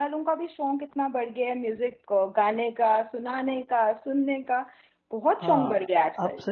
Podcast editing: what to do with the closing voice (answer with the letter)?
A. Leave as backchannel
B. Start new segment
B